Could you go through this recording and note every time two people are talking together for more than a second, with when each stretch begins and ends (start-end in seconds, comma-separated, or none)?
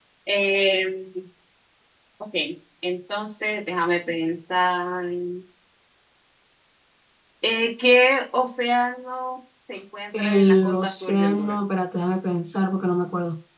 10.2-11.6